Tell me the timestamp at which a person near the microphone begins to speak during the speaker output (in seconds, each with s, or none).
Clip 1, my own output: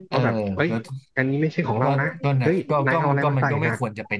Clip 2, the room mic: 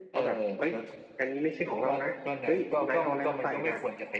none